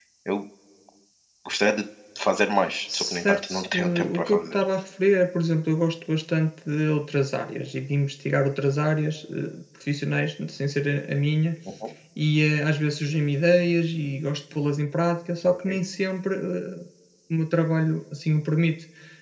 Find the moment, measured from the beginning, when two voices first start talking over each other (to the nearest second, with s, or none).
3 s